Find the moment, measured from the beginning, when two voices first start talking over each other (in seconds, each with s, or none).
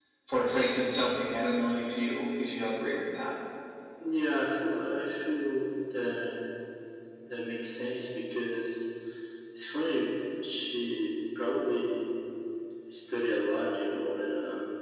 none